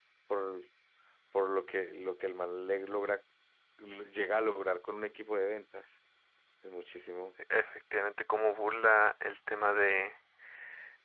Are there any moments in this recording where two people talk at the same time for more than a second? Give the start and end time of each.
none

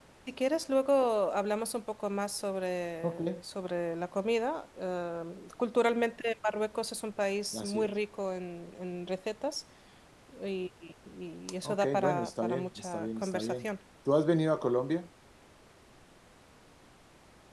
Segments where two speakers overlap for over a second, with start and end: 11.6-13.7

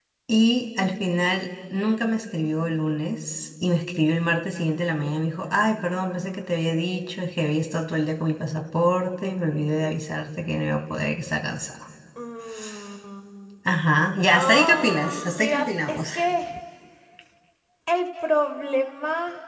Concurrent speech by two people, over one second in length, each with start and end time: 14.3-16.1

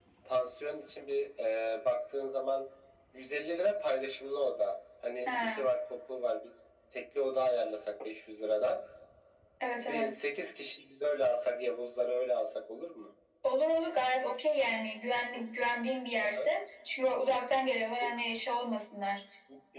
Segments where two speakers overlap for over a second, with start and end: none

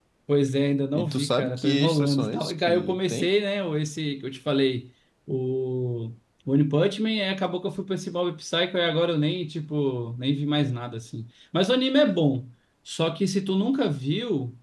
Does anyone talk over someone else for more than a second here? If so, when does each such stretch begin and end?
0.9-3.3

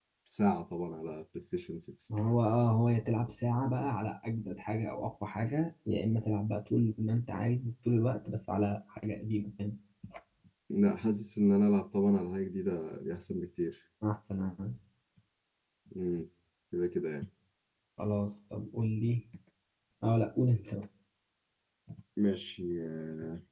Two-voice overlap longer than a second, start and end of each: none

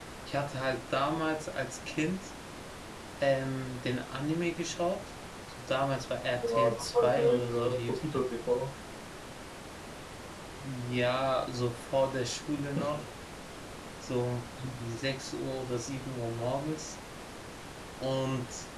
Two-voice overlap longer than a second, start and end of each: 6.4-7.7

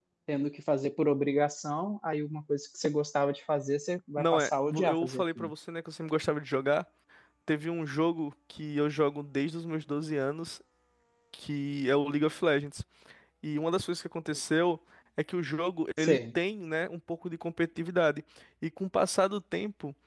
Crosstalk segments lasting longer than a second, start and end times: 4.2-5.5

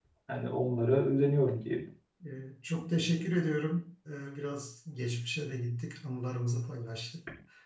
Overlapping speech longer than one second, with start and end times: none

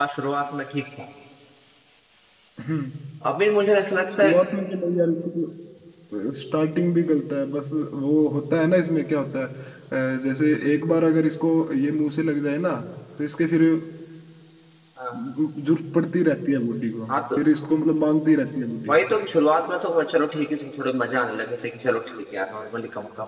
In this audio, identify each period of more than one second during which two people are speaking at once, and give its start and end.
none

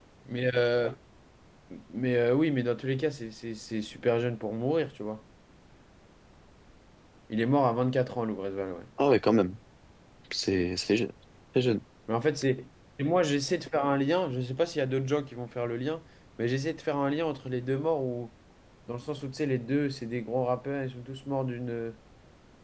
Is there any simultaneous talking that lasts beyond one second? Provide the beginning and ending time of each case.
none

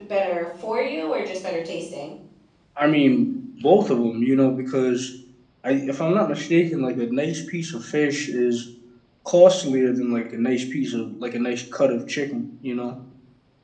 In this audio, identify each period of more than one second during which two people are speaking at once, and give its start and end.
none

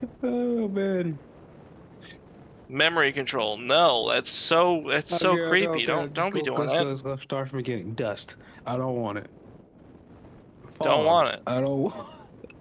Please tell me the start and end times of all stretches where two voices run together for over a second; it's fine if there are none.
5.1-6.9

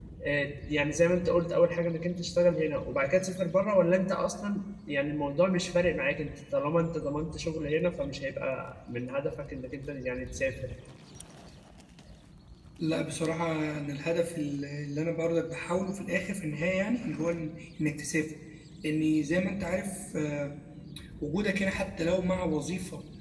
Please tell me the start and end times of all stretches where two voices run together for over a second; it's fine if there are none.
none

